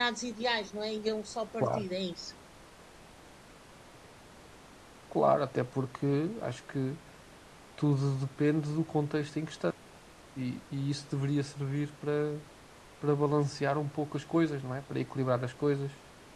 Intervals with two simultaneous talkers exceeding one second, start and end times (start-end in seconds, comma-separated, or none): none